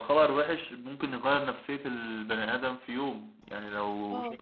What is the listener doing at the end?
listening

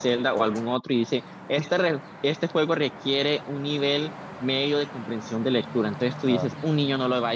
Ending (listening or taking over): listening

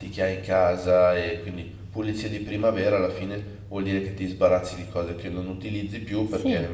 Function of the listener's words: listening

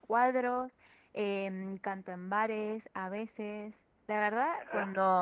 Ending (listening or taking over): taking over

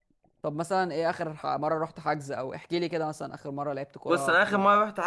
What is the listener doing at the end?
taking over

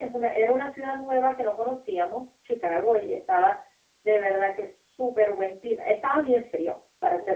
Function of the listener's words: listening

